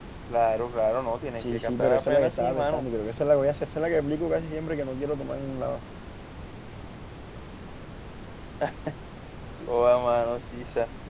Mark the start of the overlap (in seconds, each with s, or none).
1.4 s